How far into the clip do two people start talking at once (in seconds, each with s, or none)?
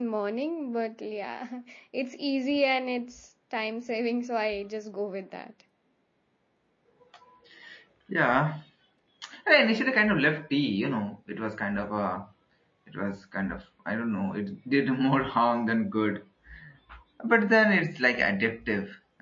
none